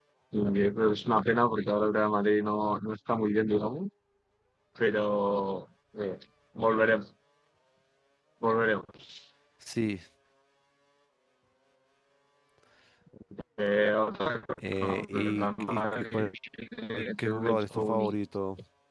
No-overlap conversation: No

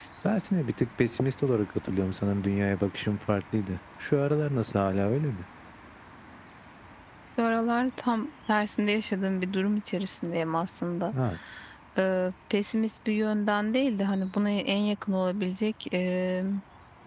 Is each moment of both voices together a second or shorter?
Yes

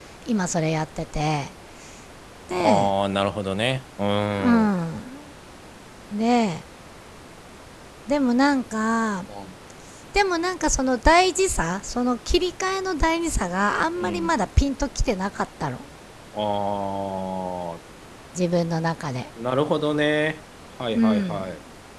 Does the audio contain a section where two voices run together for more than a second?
No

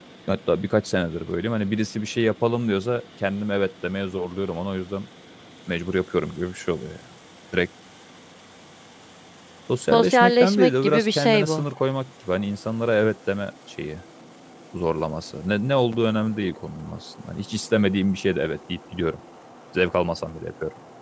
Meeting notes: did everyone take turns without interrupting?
No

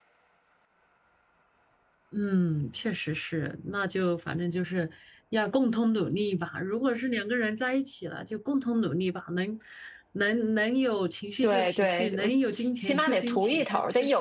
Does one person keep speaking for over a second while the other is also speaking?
Yes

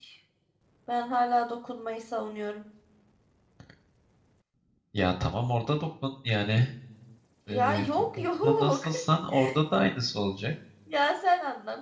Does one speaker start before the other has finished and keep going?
Yes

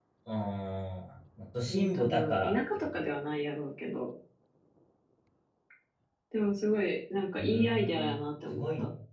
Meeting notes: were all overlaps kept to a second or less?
No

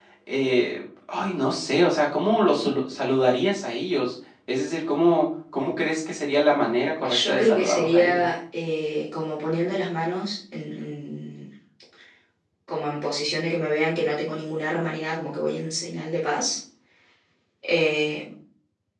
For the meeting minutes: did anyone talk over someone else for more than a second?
Yes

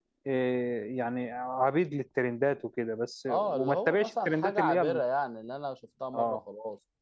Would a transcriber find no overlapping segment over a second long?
No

